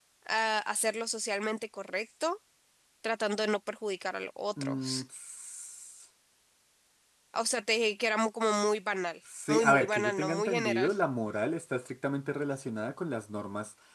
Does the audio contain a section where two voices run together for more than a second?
Yes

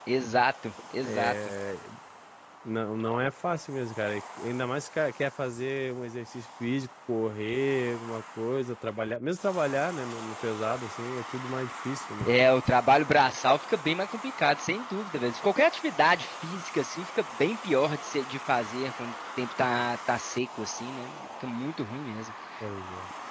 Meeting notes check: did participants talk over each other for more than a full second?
No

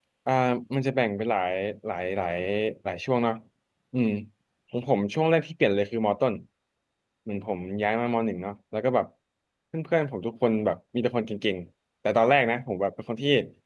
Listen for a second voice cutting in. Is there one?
No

